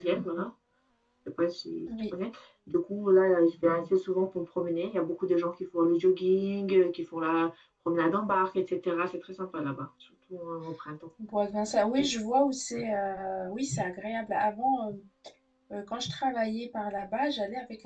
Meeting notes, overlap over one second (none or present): none